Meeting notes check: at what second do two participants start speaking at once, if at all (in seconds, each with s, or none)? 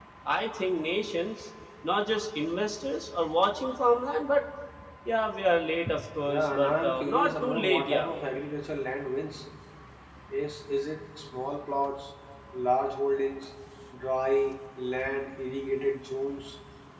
6.3 s